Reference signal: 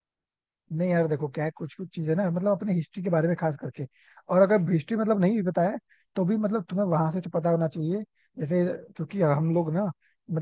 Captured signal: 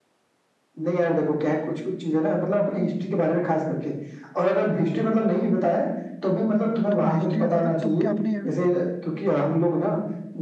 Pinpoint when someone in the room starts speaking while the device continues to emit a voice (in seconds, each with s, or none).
6.9 s